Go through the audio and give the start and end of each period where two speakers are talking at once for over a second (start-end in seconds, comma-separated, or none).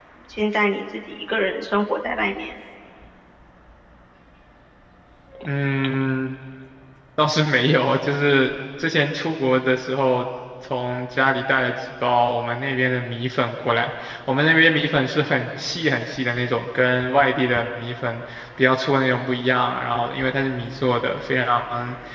none